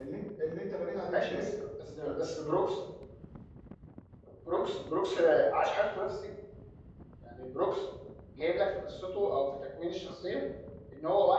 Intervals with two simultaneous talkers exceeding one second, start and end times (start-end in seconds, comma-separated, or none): none